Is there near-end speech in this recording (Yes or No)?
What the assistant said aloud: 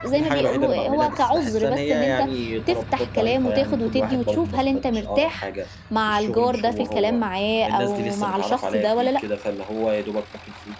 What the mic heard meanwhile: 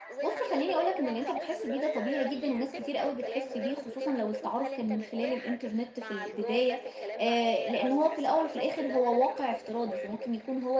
Yes